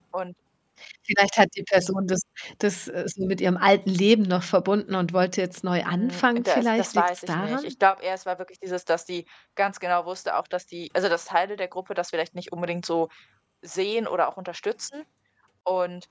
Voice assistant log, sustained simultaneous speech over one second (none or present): present